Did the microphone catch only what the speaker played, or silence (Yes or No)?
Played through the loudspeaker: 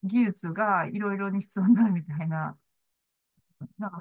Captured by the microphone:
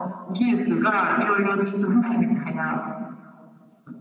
Yes